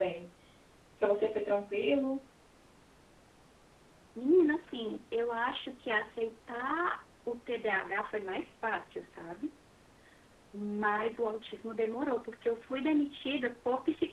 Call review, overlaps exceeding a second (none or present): none